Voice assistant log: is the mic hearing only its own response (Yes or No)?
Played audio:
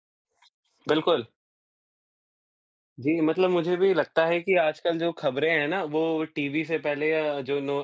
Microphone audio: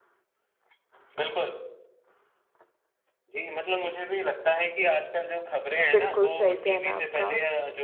No